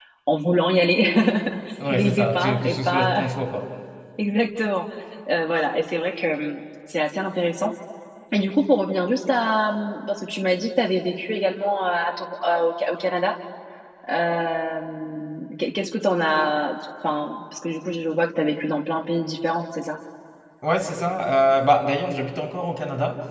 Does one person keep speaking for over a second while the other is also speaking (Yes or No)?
Yes